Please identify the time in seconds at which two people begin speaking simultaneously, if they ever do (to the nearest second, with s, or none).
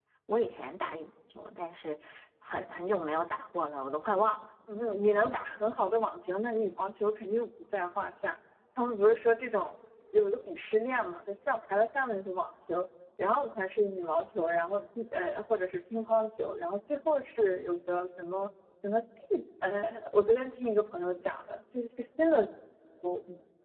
none